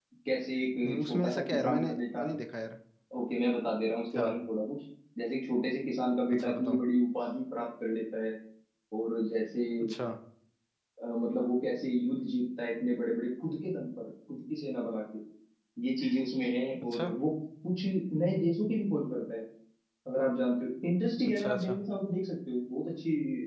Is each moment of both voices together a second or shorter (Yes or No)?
No